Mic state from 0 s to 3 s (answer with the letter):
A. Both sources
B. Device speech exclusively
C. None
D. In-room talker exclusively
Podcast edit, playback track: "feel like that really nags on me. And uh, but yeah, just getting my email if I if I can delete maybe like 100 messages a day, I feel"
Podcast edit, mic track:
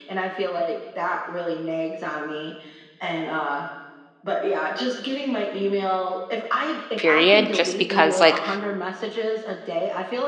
B